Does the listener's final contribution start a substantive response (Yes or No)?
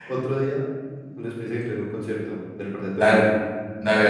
Yes